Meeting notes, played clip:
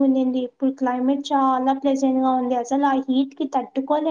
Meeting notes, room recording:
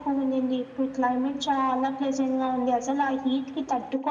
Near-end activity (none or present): none